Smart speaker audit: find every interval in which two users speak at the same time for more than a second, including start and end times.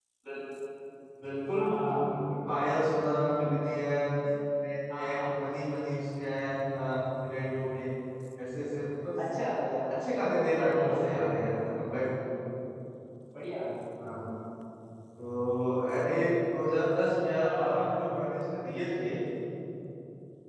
none

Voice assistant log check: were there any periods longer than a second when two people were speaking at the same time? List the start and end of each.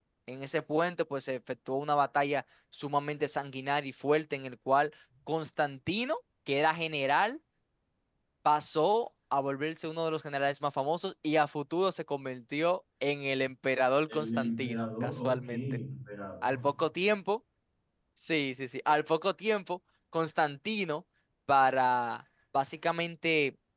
14.1-15.6

